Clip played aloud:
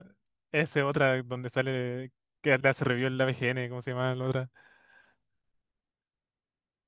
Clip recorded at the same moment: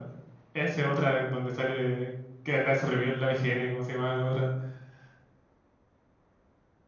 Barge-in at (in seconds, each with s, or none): none